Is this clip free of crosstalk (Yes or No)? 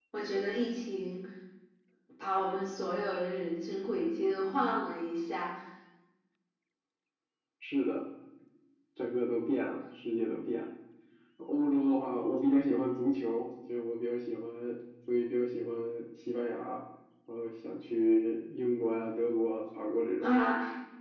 Yes